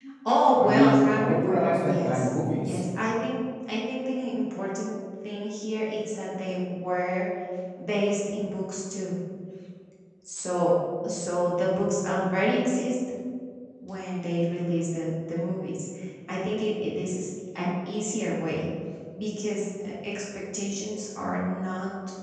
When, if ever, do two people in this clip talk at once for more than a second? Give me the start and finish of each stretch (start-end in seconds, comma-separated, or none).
0.6-2.8